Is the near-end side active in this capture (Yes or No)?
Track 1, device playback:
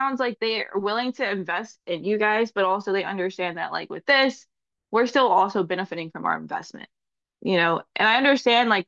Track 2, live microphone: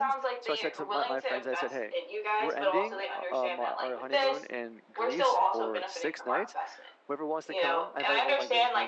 Yes